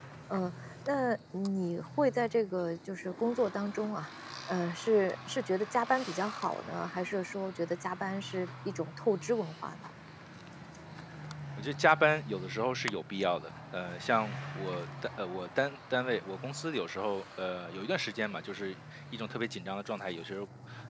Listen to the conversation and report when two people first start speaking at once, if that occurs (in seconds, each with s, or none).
none